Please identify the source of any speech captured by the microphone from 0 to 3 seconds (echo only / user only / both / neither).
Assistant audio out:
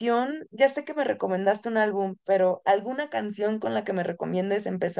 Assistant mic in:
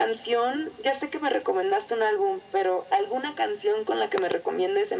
echo only